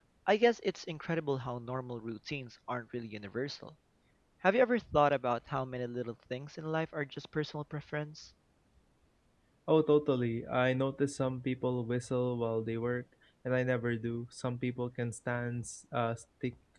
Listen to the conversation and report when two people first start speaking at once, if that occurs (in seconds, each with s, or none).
none